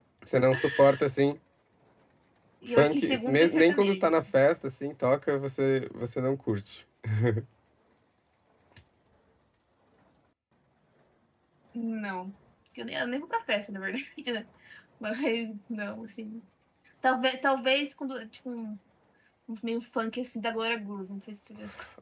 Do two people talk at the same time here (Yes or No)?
Yes